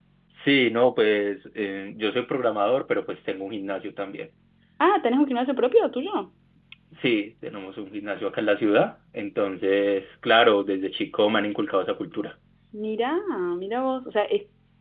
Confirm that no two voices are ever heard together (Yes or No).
Yes